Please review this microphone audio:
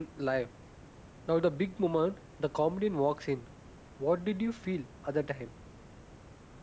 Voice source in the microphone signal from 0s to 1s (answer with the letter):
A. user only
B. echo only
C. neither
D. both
A